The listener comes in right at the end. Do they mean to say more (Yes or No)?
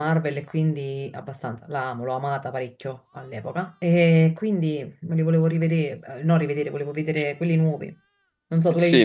Yes